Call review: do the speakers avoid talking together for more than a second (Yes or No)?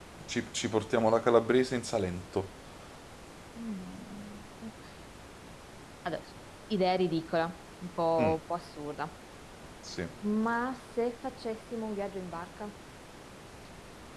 Yes